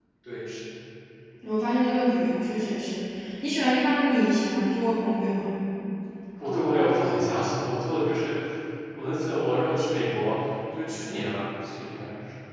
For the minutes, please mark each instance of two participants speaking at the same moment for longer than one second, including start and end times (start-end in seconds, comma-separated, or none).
none